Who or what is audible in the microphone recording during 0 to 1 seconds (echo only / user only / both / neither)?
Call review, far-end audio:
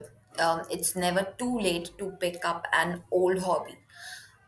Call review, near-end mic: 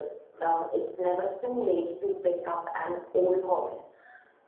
echo only